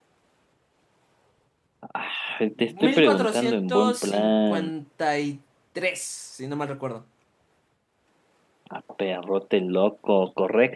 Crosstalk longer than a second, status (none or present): present